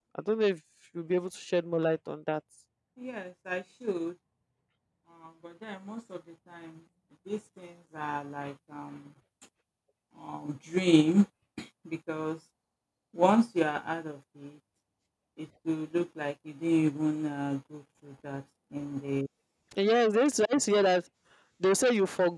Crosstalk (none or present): none